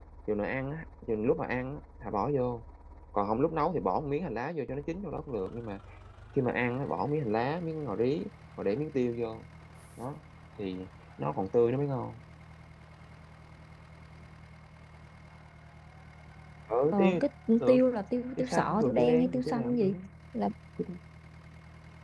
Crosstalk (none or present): present